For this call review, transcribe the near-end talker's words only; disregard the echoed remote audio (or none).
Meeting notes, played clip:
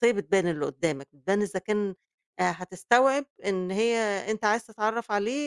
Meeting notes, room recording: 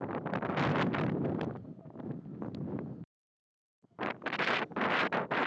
none